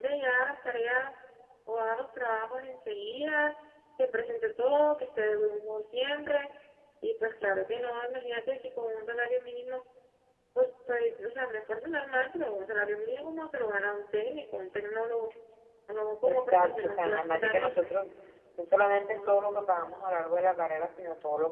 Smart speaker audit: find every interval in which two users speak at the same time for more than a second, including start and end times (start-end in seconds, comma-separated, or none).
16.2-17.9